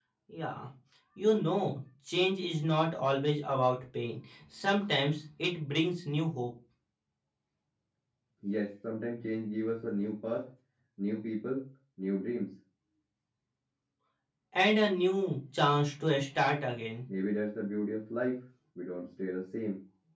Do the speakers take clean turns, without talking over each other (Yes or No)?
Yes